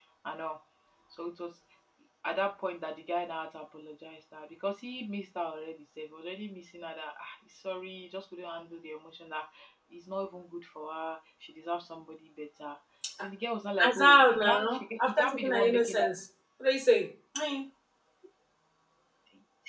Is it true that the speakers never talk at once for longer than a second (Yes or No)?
No